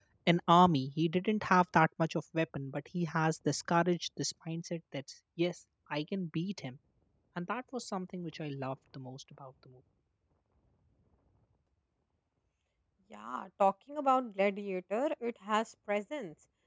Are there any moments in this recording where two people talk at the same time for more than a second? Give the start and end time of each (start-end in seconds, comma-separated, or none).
none